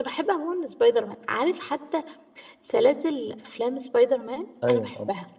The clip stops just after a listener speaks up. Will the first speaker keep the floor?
No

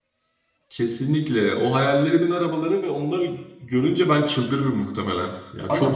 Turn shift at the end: Yes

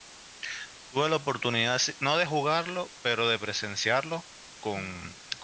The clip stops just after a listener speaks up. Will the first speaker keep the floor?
Yes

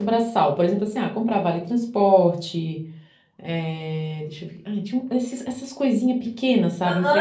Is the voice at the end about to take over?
Yes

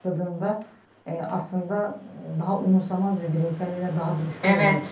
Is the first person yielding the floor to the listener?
Yes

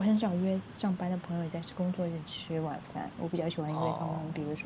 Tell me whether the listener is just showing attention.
Yes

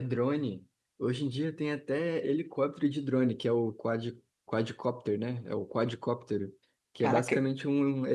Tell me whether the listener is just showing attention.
Yes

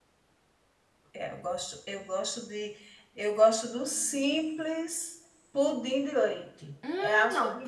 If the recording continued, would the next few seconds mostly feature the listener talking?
Yes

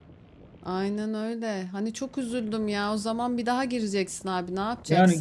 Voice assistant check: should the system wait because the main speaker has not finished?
No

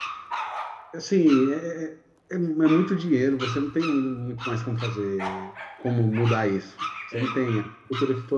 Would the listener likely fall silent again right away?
Yes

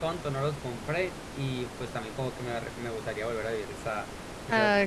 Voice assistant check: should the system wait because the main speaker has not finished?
No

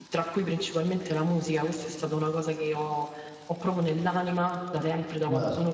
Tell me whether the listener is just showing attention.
Yes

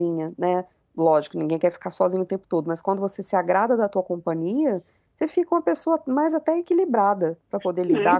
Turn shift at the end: Yes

